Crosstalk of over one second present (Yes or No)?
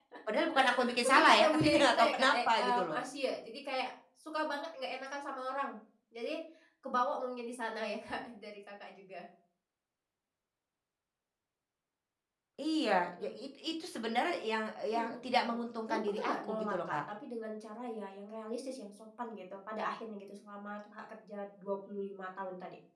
Yes